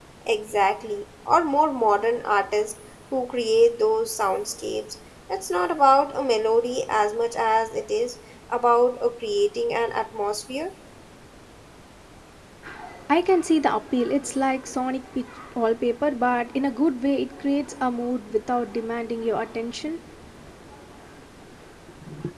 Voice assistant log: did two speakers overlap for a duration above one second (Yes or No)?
No